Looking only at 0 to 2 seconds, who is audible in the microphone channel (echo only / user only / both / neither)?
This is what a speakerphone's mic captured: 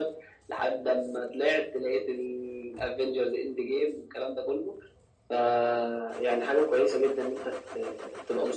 echo only